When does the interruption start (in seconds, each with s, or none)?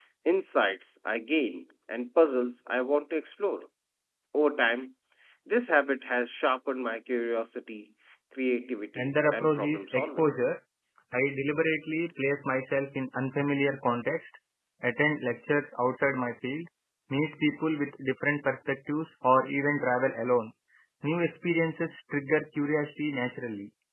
8.9 s